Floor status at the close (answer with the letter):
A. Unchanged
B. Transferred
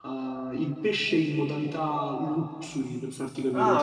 A